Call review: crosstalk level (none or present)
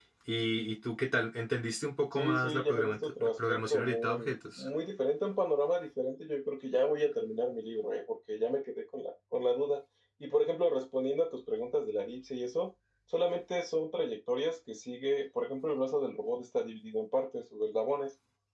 present